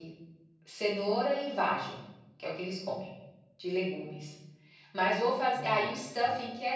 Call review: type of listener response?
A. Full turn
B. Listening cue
B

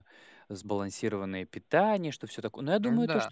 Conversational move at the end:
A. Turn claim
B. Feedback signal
B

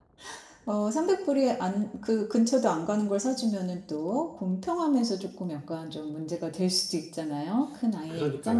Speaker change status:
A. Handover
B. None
A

